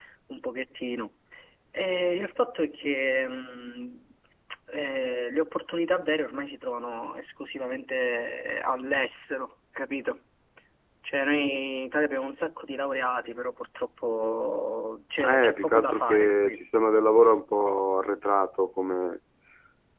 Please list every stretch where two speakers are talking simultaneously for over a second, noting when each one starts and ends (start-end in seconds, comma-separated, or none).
15.2-16.6